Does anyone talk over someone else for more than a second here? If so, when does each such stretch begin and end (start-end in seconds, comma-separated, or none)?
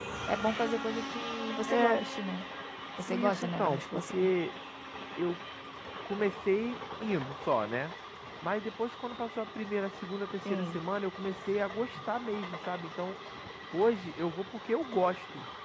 3.1-4.3